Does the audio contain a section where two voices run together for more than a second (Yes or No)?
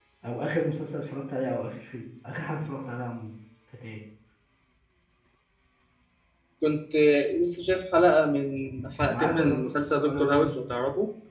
Yes